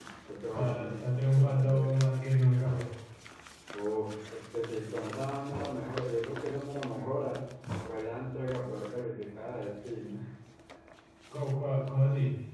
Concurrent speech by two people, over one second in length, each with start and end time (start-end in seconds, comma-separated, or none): 0.6-1.9